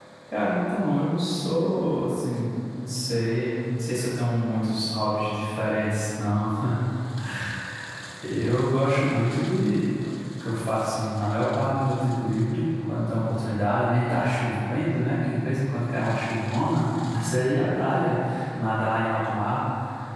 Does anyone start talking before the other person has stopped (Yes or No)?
No